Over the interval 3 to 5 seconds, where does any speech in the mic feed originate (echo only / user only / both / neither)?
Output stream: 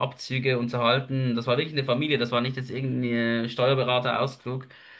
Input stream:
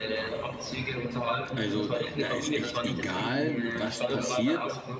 both